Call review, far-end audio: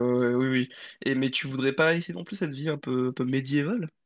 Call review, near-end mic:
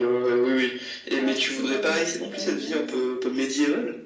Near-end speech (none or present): present